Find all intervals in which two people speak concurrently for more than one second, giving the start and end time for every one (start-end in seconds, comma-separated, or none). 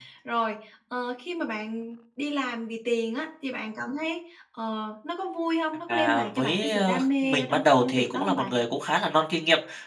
5.9-8.5